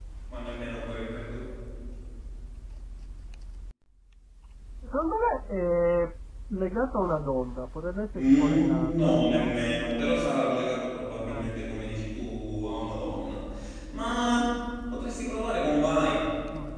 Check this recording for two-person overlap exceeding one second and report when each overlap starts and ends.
8.2-9.6

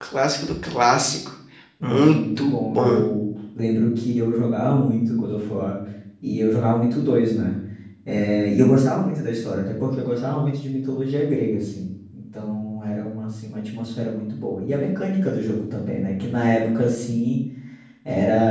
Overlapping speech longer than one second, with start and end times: 1.8-3.0

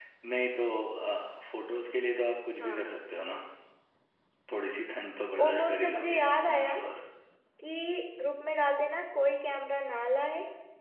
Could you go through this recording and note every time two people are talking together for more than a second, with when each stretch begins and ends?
5.4-6.7

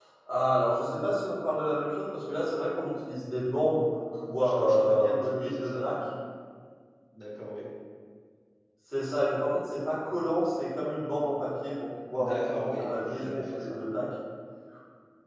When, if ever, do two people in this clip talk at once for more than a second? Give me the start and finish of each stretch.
4.4-5.9, 12.2-13.8

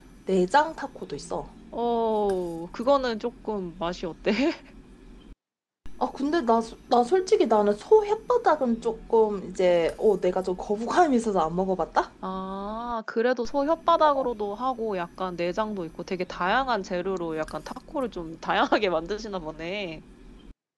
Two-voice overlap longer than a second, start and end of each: none

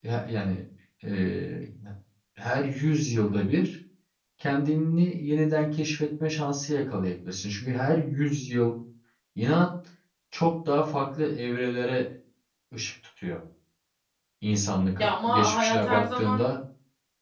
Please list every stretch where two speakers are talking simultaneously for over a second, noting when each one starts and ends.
15.0-16.5

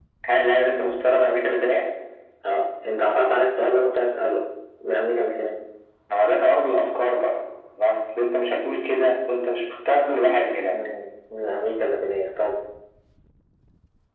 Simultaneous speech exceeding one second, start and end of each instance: none

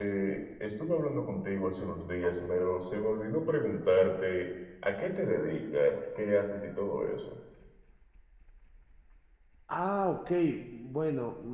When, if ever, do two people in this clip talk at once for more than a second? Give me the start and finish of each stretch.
none

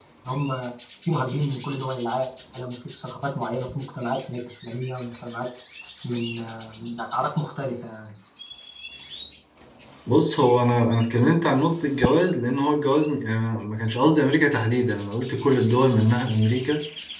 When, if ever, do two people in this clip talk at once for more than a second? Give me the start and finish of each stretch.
none

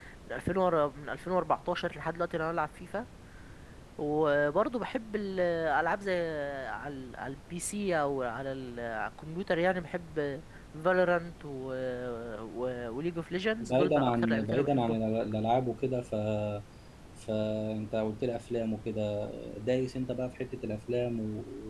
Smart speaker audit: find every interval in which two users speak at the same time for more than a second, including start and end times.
13.6-15.0

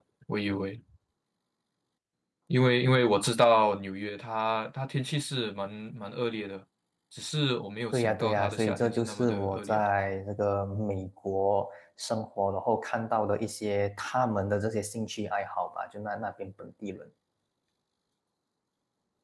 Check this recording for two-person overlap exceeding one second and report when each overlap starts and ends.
7.9-9.8

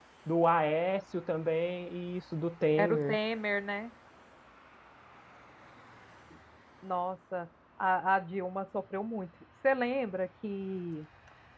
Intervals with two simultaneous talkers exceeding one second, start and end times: none

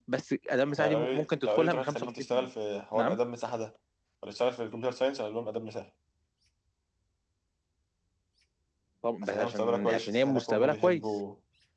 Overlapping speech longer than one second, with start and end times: 0.8-2.5, 9.2-11.0

